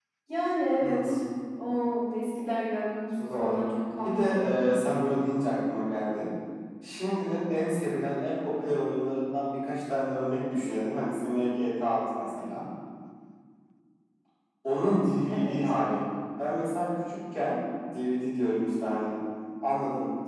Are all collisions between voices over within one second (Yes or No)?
Yes